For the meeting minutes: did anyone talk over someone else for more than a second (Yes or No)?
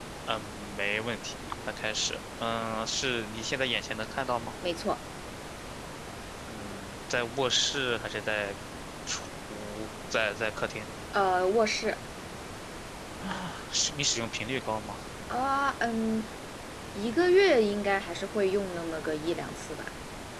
No